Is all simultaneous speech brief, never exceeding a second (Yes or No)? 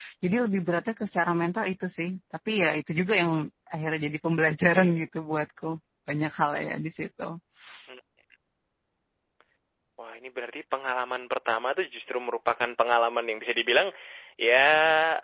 Yes